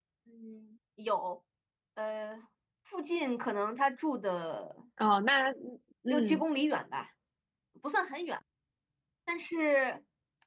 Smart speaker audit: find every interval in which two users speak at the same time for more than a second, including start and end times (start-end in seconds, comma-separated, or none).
none